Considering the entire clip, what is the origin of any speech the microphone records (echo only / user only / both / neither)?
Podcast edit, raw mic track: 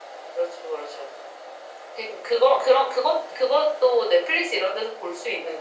echo only